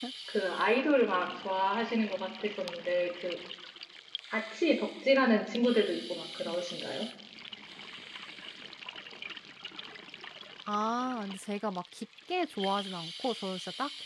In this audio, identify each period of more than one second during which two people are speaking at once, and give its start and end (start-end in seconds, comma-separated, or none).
none